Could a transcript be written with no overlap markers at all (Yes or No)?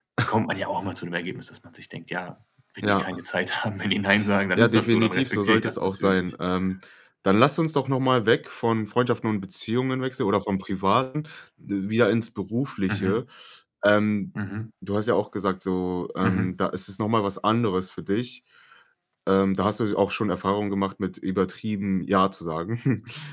No